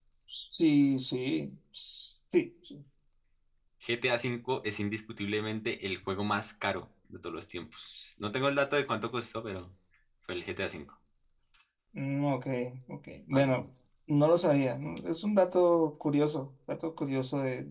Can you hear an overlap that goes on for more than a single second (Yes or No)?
No